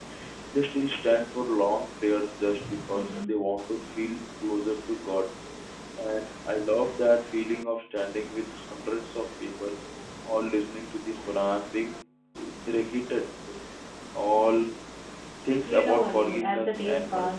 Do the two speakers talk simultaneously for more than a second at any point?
Yes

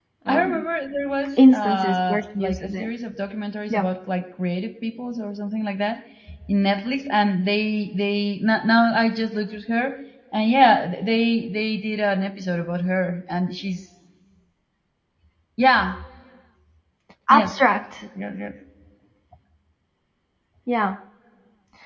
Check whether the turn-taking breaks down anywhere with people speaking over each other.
Yes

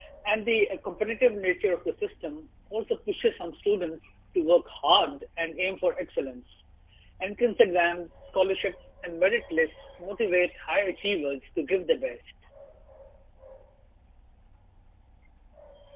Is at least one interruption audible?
No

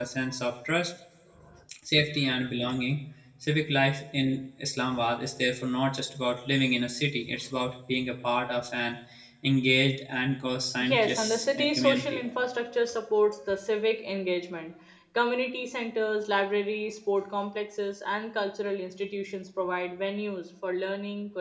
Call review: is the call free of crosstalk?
No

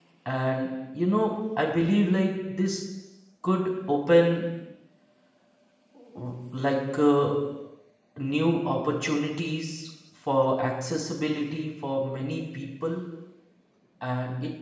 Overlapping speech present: No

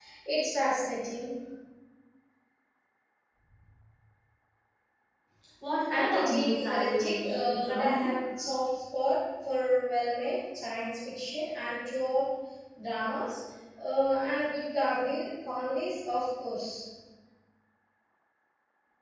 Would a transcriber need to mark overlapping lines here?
Yes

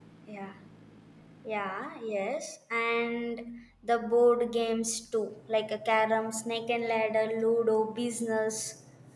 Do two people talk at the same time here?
No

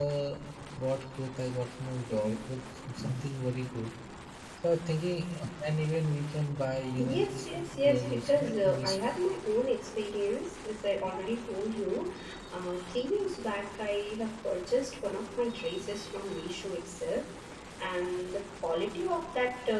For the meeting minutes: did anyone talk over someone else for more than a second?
Yes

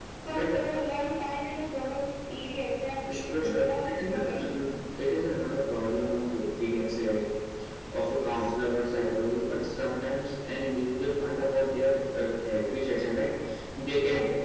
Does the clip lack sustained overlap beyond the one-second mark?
No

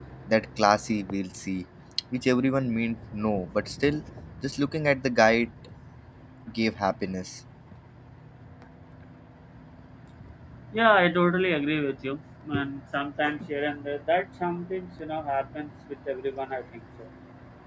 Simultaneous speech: No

